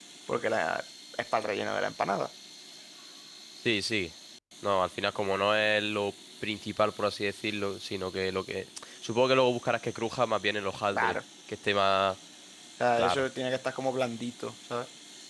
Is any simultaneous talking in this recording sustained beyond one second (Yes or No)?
No